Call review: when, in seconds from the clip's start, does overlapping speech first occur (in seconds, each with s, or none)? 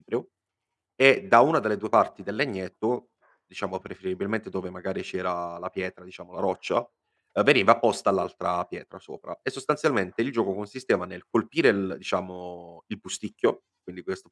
none